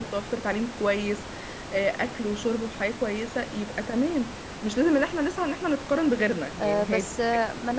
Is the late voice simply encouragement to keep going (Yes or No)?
No